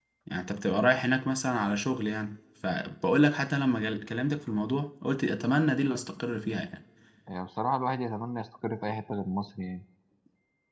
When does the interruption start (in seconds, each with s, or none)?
none